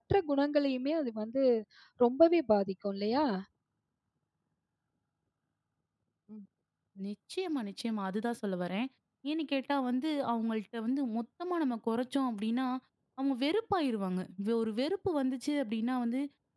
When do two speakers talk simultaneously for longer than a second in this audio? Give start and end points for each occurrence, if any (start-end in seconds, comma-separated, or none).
none